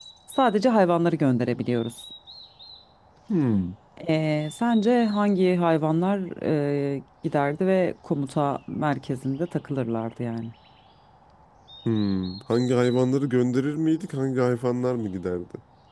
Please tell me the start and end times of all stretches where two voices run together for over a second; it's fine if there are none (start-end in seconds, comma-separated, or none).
none